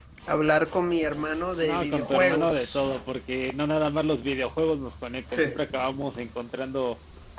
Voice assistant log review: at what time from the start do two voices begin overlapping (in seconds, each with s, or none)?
1.6 s